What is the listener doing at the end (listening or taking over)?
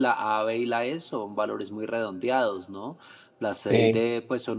listening